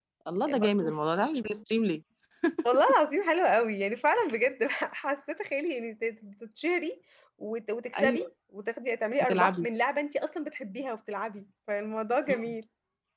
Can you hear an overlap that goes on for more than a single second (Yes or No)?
No